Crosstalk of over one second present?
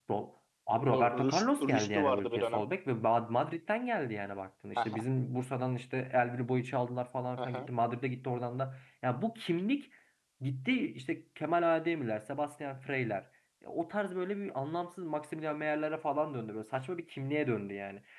Yes, from 0.9 s

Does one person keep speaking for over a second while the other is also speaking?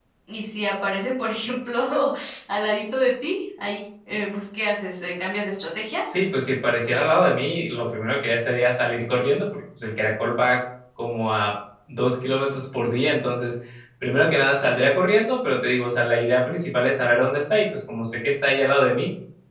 No

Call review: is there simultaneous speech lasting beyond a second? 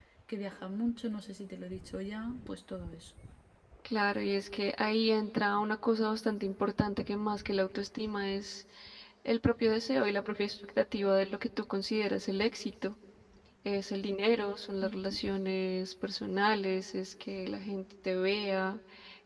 No

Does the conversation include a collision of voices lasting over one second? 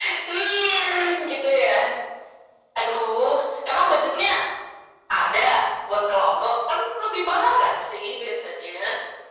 No

